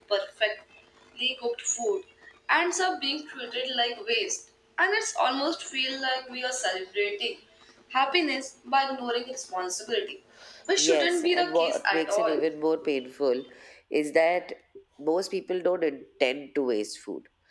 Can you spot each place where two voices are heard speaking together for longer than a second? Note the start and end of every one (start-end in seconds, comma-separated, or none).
10.8-12.4